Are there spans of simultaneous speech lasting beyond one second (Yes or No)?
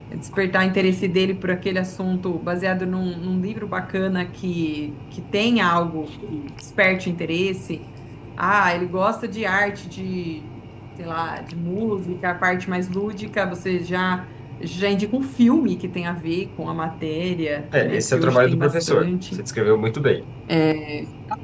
Yes